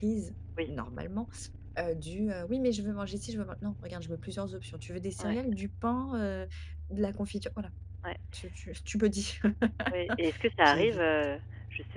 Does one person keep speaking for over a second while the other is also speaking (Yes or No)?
No